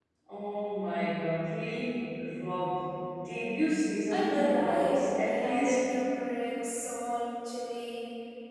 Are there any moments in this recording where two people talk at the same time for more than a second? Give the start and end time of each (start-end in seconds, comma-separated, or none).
4.1-5.8